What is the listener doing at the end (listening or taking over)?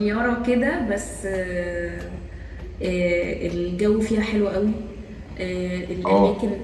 listening